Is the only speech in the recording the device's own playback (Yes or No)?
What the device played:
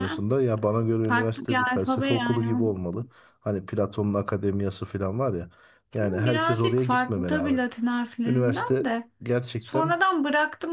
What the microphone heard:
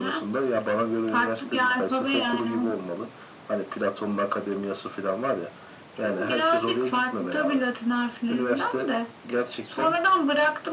Yes